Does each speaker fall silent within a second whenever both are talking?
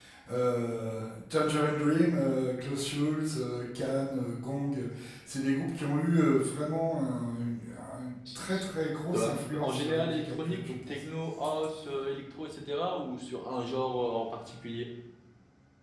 No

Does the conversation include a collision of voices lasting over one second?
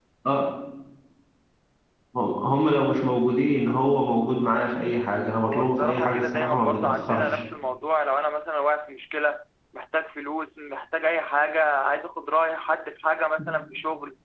Yes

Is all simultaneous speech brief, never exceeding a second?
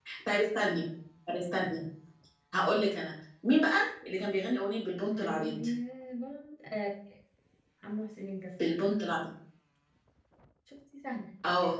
Yes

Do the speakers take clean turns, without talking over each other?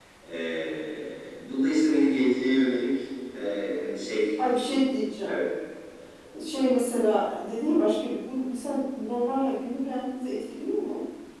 Yes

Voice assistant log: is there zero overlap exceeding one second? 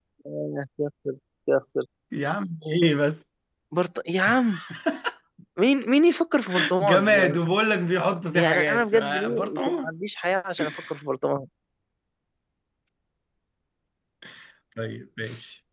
No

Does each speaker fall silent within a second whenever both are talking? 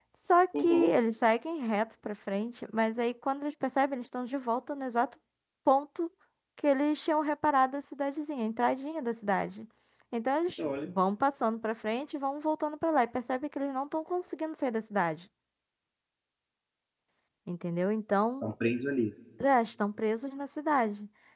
Yes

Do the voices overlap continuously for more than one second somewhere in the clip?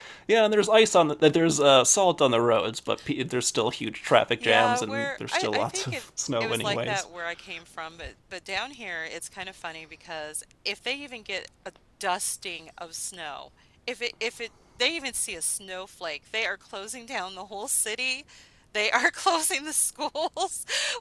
Yes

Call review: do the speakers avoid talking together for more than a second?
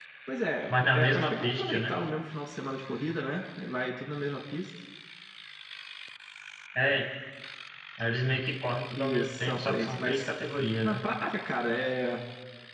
No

